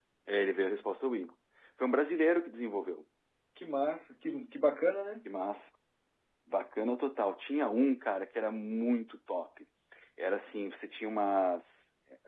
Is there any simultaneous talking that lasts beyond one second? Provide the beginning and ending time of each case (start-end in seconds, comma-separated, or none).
none